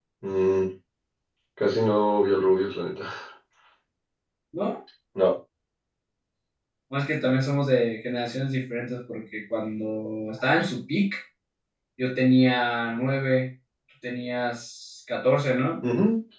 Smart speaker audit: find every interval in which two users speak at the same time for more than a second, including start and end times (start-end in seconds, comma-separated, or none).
none